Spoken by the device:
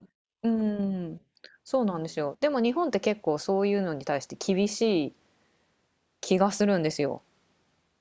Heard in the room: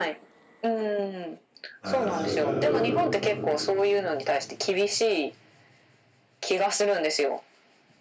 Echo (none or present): present